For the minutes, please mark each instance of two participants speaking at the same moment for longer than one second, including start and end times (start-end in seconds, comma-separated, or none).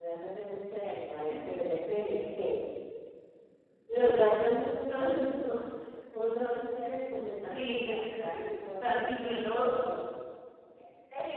7.5-9.4